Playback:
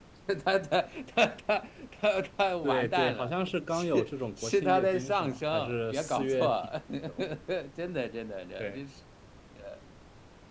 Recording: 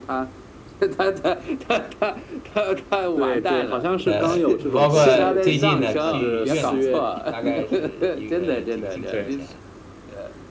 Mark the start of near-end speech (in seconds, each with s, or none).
4.0 s